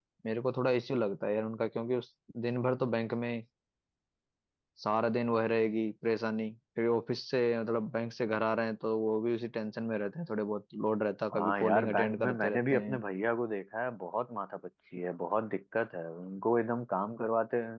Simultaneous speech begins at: 11 s

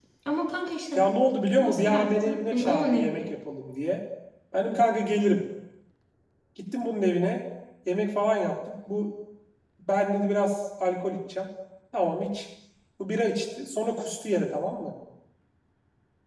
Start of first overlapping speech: 2 s

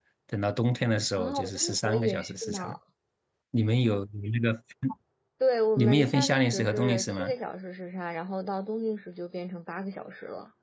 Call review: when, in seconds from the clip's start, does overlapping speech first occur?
1 s

